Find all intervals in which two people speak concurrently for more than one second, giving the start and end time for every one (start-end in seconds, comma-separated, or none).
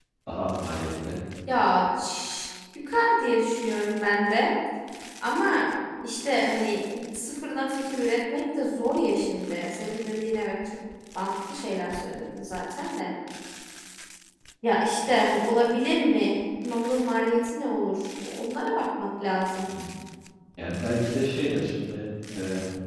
none